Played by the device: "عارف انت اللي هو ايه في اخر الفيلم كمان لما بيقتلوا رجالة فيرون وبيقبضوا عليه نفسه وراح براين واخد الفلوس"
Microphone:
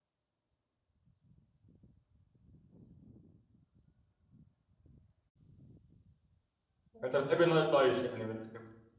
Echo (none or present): none